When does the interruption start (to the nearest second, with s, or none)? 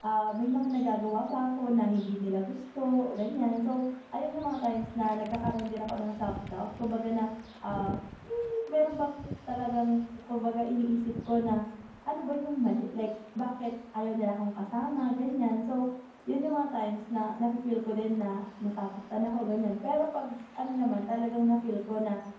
none